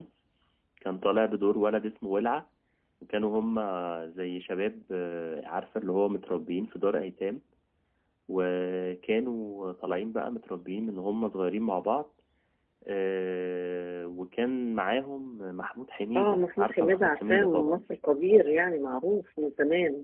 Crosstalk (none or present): present